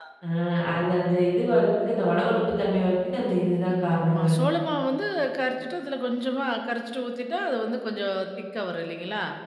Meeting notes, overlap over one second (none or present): none